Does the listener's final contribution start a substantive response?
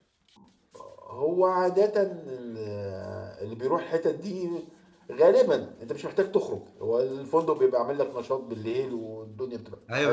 Yes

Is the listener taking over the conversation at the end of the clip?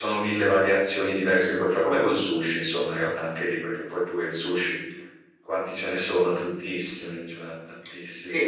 Yes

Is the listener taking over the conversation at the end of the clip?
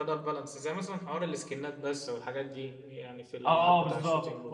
Yes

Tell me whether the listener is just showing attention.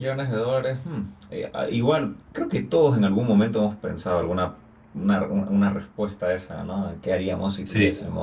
Yes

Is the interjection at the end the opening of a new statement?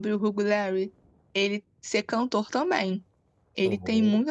No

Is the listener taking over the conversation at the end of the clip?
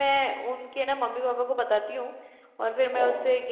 No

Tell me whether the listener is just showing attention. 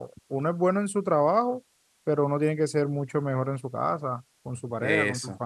No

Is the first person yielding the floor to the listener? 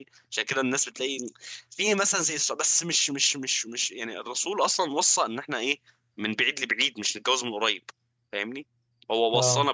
No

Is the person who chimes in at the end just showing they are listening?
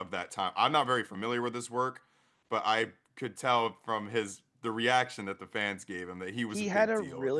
No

